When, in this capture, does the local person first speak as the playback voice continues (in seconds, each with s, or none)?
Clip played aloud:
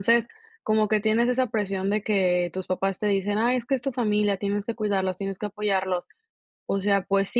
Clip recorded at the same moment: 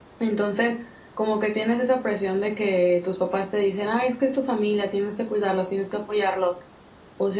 none